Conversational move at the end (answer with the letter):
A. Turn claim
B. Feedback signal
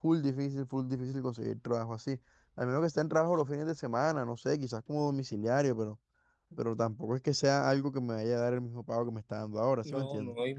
A